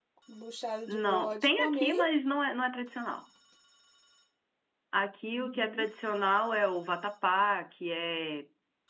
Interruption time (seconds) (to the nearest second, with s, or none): 1 s